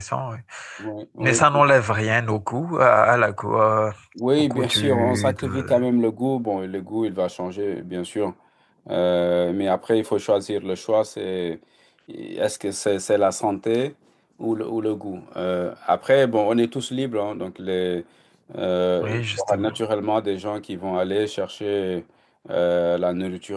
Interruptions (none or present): present